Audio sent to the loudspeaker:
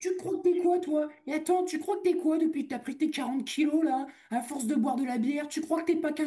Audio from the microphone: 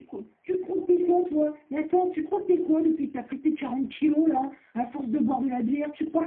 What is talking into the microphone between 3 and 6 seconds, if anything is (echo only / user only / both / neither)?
echo only